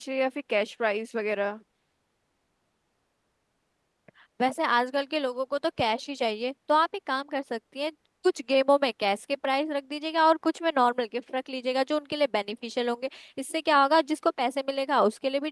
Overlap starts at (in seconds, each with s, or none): none